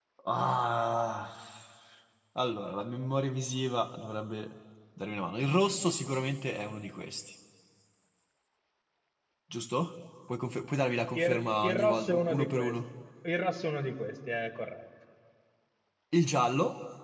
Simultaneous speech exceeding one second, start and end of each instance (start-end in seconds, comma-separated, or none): 11.1-12.7